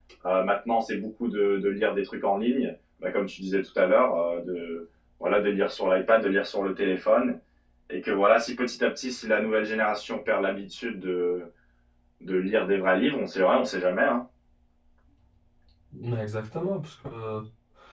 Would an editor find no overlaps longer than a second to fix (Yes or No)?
Yes